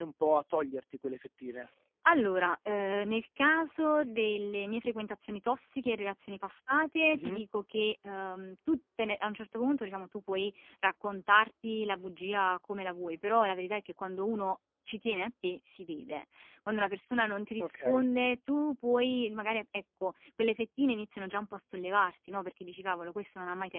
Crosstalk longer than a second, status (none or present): none